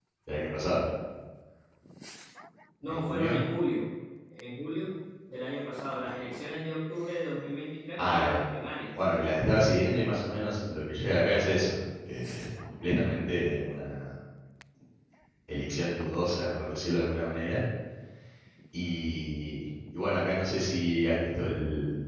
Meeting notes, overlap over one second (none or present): none